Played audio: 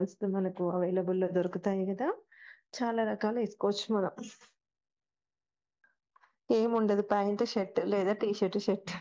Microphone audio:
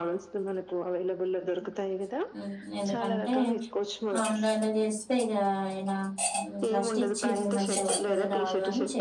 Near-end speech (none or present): present